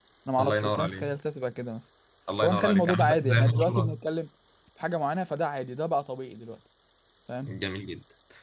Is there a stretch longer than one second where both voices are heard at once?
Yes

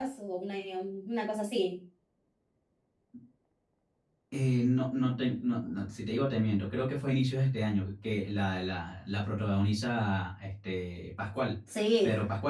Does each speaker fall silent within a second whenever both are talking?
Yes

